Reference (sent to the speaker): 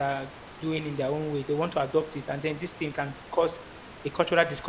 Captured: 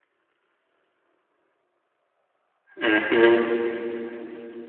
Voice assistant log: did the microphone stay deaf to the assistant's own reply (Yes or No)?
Yes